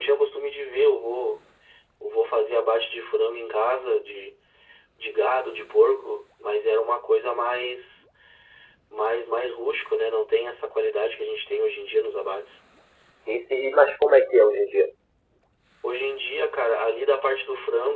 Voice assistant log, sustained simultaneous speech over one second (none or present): none